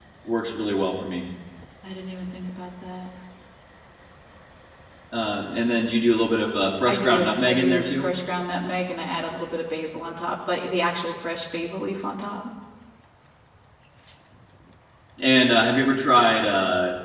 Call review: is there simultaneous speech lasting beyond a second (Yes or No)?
Yes